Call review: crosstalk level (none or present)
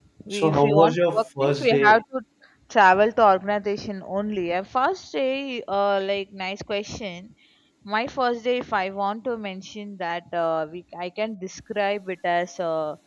present